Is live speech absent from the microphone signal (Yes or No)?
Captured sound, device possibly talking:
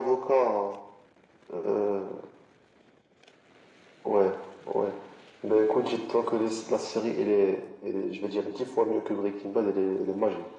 Yes